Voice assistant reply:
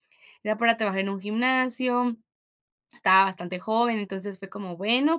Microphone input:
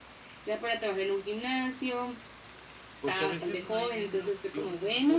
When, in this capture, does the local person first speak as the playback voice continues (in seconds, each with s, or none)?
3.0 s